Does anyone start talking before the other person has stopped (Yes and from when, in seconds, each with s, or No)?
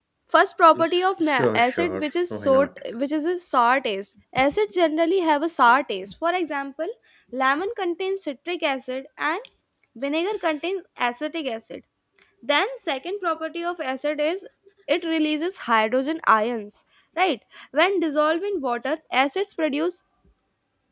Yes, from 0.8 s